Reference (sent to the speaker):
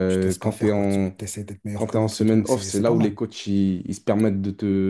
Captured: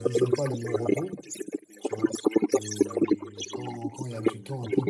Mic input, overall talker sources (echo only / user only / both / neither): both